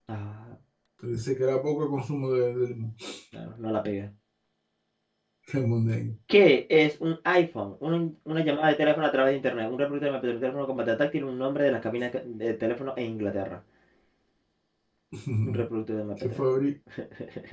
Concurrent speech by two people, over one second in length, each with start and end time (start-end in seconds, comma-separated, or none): none